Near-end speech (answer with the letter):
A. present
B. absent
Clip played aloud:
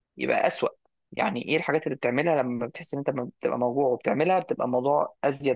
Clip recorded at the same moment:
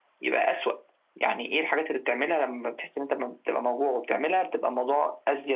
B